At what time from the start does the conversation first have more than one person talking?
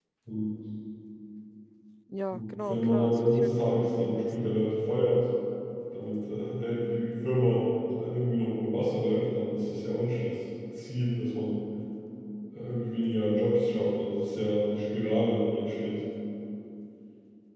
2.3 s

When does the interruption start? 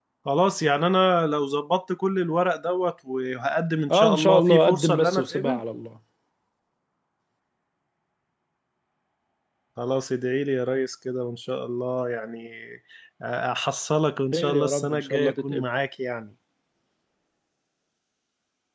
3.9 s

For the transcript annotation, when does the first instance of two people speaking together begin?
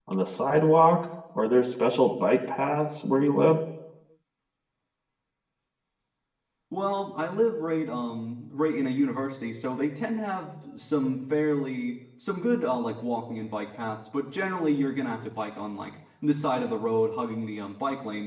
none

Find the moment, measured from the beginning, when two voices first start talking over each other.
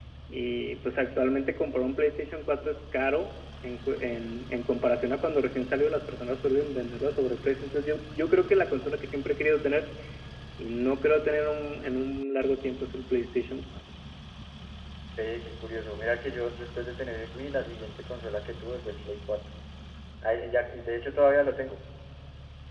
none

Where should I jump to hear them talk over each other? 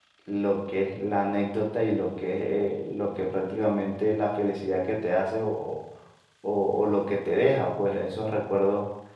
none

